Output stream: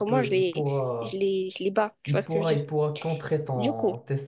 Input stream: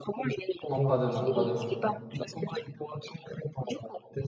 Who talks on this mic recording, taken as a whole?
both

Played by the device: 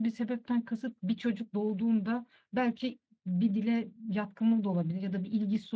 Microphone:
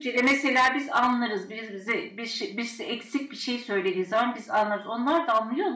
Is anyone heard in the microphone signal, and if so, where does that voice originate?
user only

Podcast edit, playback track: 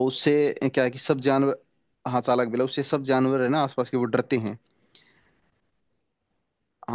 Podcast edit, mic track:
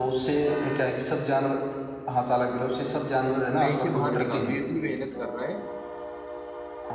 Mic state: both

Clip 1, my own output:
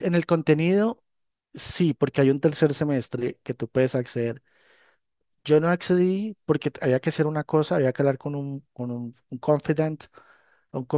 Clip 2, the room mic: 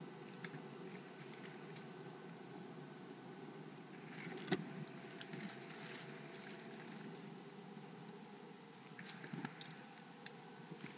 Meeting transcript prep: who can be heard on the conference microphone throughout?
neither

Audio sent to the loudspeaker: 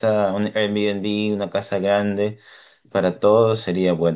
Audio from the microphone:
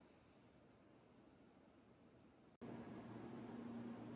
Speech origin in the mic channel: neither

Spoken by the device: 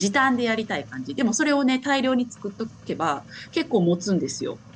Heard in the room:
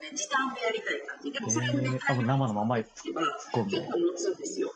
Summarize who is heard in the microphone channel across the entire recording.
both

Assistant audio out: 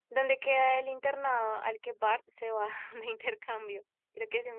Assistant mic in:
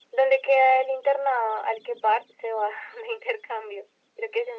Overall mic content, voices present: echo only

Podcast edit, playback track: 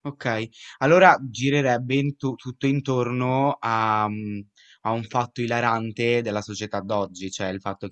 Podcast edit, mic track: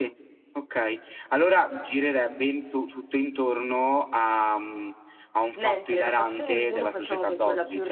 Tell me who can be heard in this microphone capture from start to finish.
both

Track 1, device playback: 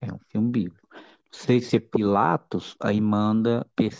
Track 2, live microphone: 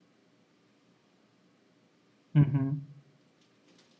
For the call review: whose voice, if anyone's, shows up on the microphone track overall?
user only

